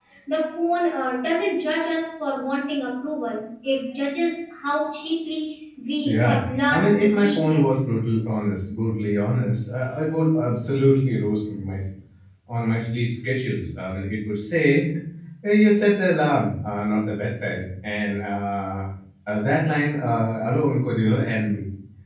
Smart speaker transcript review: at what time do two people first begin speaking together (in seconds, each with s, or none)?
6.0 s